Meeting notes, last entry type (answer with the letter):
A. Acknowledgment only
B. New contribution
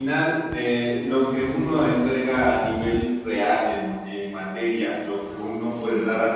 A